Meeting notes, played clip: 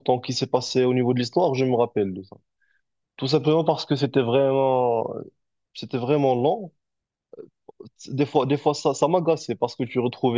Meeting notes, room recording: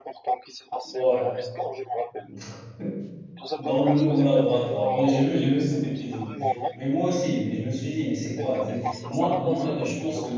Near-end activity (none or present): present